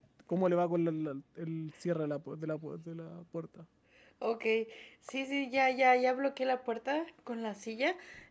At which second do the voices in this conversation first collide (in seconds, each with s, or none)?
none